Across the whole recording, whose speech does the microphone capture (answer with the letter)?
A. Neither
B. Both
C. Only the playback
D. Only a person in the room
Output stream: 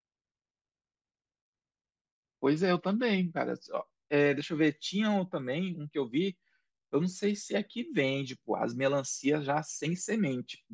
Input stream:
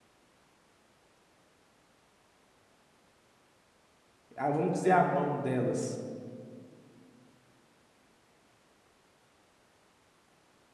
D